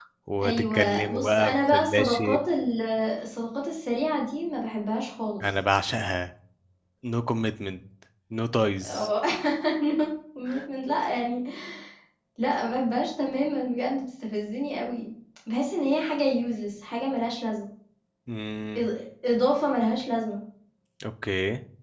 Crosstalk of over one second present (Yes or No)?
Yes